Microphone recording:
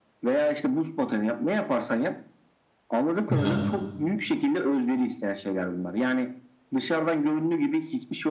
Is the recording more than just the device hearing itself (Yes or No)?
Yes